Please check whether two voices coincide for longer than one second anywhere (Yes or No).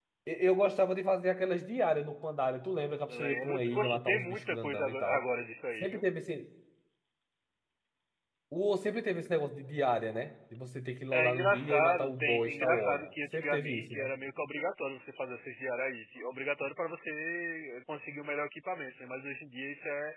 Yes